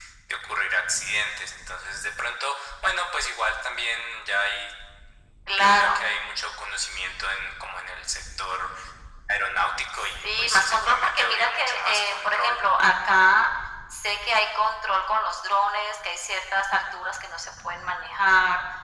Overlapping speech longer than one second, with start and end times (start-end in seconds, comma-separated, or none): 10.0-12.6